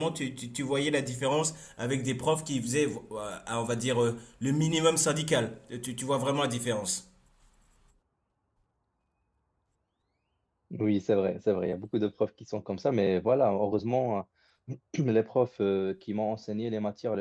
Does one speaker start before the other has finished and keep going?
No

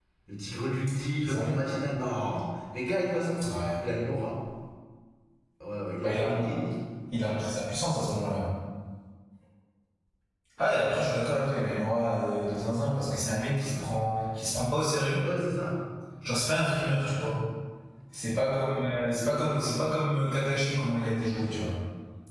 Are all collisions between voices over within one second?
Yes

